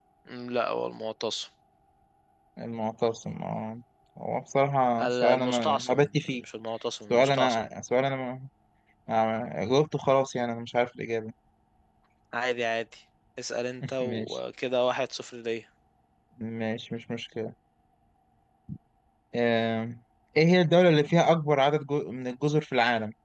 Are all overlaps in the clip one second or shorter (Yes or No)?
No